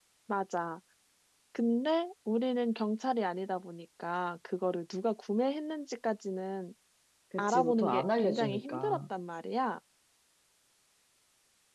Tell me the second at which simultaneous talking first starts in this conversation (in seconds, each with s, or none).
7.4 s